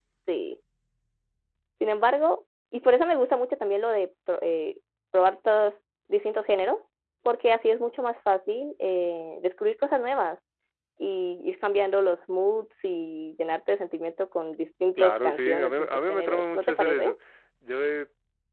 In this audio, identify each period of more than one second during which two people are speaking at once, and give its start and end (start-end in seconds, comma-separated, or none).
15.0-17.1